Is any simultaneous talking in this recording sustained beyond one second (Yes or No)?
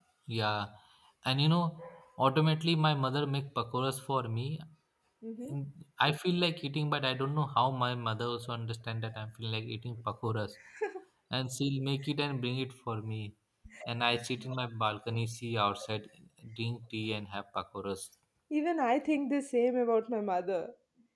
No